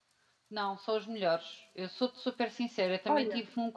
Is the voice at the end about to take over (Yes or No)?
No